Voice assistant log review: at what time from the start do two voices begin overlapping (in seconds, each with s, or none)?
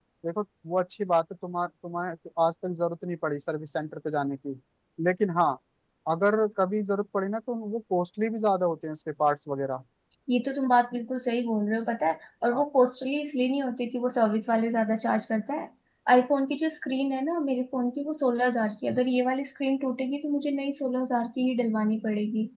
none